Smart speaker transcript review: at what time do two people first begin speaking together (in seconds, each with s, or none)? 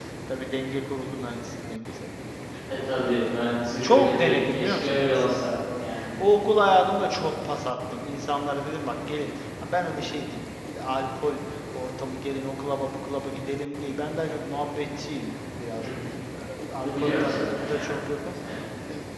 3.8 s